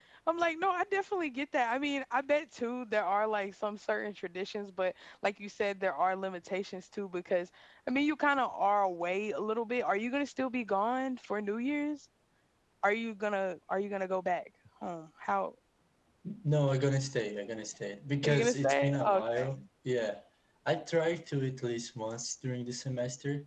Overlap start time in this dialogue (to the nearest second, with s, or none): 18 s